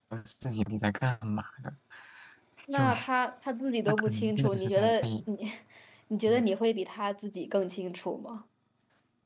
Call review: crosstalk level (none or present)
present